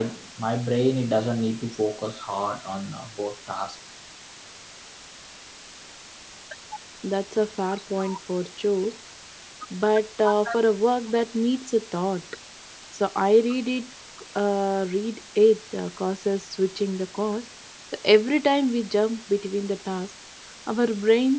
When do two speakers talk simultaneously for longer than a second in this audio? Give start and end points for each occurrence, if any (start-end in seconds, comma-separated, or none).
none